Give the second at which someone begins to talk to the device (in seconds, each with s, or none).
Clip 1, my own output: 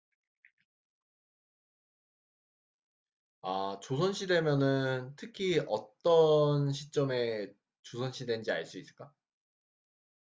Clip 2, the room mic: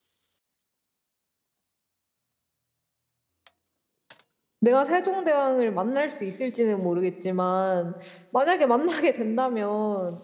4.6 s